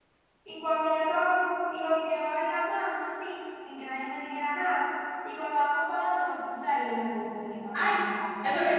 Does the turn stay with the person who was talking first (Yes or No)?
No